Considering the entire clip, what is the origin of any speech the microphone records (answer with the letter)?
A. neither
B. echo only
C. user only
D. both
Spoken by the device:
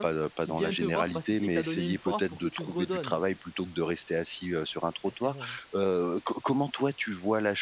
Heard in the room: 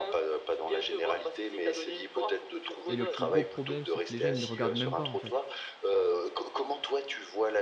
D